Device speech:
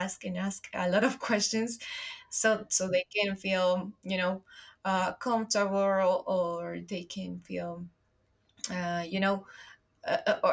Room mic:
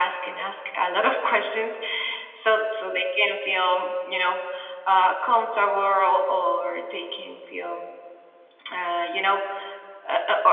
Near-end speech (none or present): none